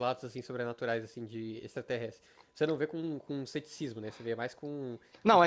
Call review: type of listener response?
taking over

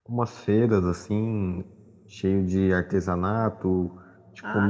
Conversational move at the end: listening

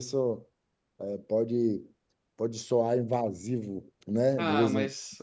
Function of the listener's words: taking over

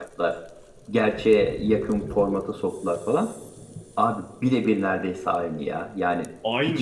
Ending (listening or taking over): listening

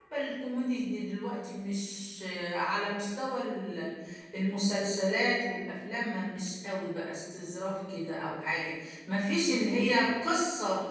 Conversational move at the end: listening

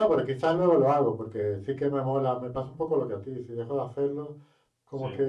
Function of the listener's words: listening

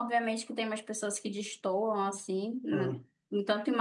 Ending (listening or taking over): listening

